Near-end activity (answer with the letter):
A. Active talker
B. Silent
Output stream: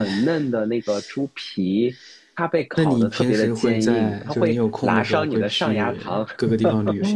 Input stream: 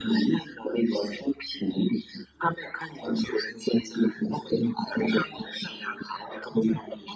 B